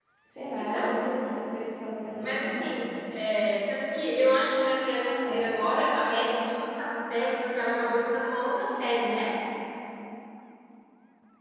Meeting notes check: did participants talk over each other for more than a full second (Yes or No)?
No